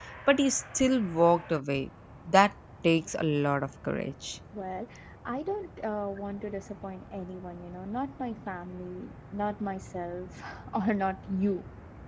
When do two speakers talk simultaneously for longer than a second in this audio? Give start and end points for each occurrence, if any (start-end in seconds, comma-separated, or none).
none